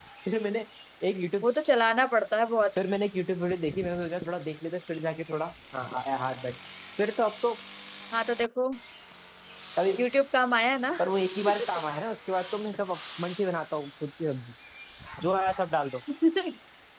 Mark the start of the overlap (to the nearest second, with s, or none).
none